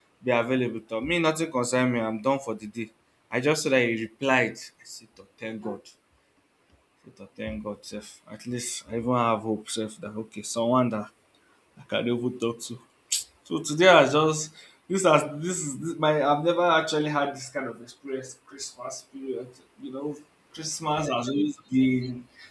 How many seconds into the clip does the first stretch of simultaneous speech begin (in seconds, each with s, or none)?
none